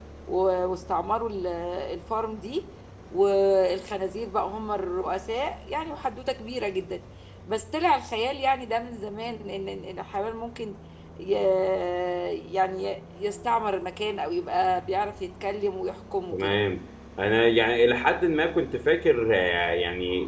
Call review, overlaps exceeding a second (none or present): none